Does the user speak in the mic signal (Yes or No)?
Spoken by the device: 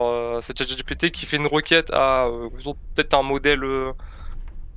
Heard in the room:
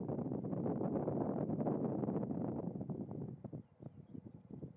No